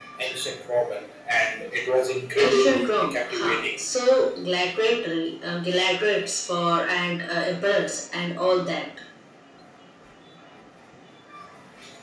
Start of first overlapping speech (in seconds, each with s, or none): 2.4 s